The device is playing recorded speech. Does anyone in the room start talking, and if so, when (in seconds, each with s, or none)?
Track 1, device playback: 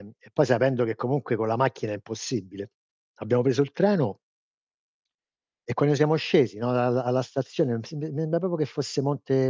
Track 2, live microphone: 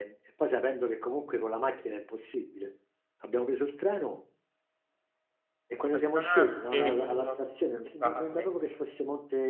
5.8 s